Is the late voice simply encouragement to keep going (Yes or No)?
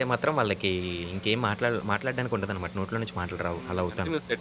No